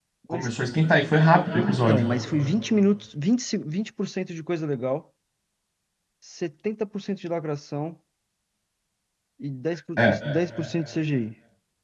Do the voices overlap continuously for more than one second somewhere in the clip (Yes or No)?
No